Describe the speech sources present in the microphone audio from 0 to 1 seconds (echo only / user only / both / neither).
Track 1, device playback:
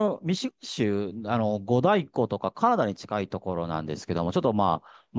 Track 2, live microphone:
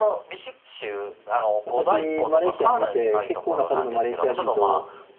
echo only